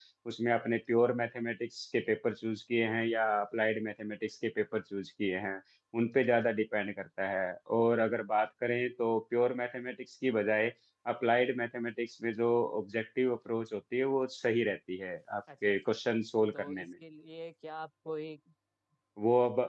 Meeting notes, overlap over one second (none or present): none